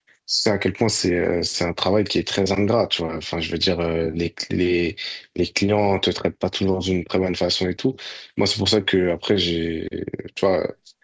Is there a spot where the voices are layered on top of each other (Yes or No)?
No